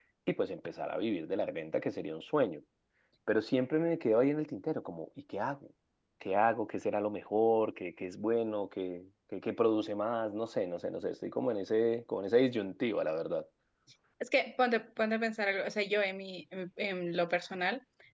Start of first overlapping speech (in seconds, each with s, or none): none